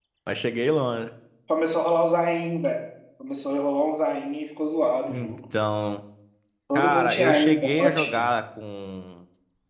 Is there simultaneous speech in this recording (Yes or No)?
Yes